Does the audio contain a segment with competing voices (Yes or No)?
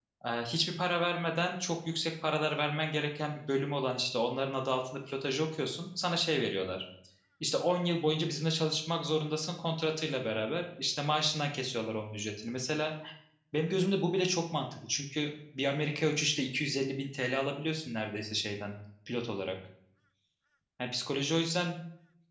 No